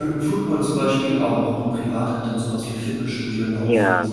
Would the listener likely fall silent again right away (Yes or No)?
No